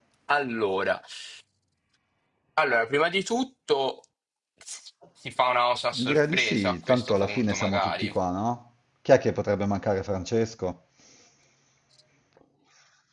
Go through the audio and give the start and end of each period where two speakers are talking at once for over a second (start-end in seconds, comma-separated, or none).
6.0-8.1